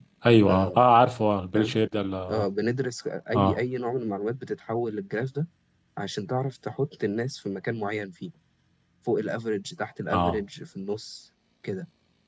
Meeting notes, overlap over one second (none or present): none